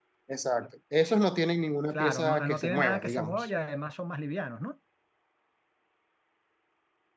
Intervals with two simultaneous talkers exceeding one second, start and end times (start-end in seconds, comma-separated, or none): 1.9-3.5